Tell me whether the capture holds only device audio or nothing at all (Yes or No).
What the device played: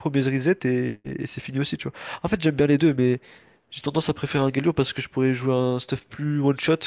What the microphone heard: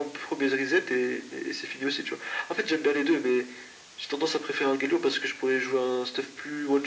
Yes